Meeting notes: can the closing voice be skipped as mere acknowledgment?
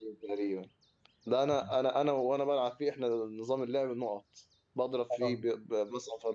Yes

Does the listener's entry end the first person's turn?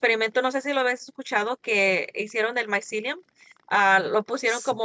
No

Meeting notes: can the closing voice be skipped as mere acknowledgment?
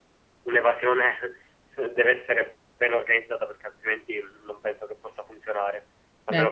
Yes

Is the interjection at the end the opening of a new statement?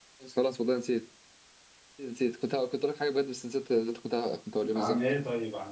Yes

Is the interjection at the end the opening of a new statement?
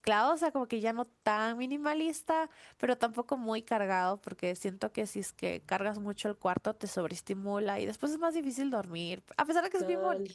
Yes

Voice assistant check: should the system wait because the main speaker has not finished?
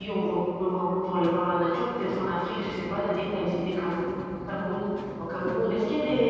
Yes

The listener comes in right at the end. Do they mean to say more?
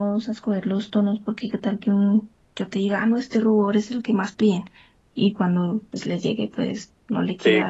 Yes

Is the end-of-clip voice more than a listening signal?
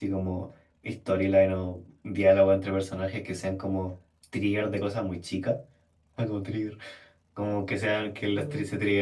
No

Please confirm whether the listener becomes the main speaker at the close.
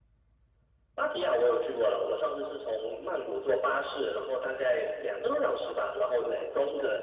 Yes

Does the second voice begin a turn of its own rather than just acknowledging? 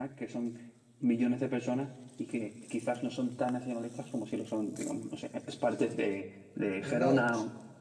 Yes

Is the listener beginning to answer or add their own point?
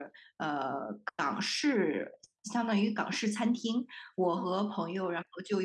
No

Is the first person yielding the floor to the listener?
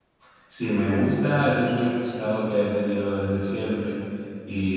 No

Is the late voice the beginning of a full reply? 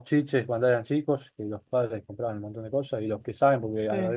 No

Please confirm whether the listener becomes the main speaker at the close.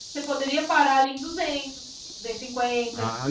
Yes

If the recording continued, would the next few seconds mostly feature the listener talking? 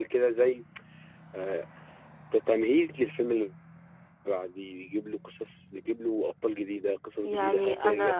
No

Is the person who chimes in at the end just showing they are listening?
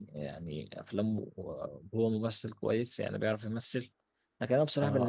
Yes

